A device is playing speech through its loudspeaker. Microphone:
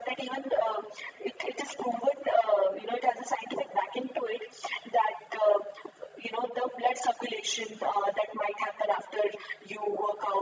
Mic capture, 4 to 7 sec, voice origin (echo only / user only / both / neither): echo only